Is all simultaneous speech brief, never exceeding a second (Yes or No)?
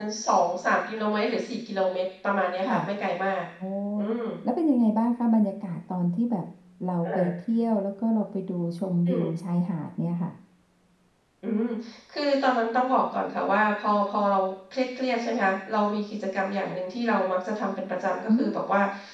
Yes